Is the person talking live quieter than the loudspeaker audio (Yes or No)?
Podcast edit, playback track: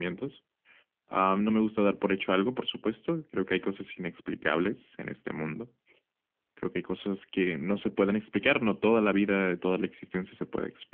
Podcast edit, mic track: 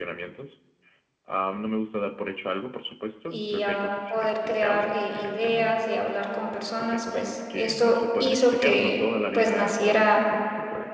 No